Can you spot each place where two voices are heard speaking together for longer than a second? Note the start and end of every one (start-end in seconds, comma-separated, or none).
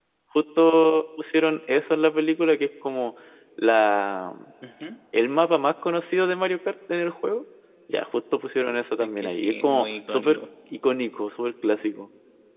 9.0-10.4